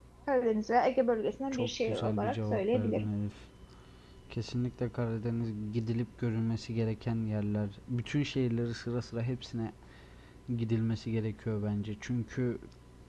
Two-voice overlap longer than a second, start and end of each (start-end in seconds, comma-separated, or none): 1.5-3.1